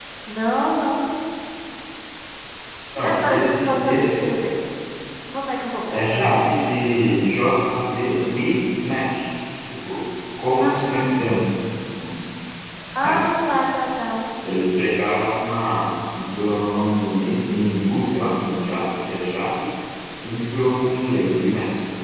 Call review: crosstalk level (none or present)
present